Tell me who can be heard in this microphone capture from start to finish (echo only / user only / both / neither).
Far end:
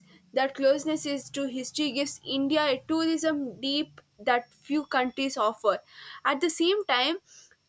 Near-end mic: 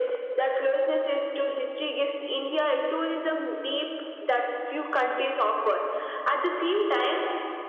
echo only